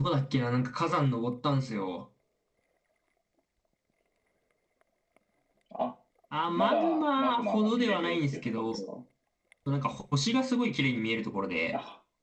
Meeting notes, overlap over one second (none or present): present